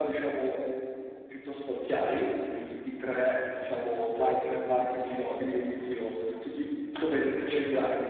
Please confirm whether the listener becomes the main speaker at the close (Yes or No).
Yes